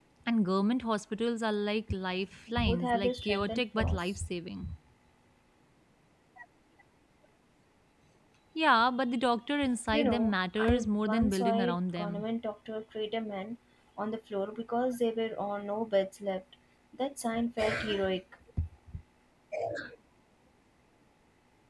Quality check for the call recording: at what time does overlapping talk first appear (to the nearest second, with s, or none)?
3 s